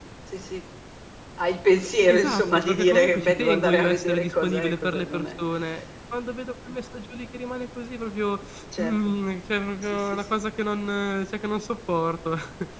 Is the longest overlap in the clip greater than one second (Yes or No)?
Yes